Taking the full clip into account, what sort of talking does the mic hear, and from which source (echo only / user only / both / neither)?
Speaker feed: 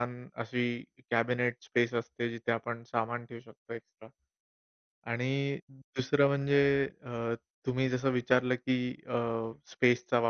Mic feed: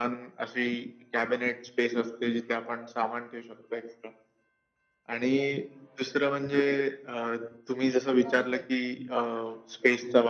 both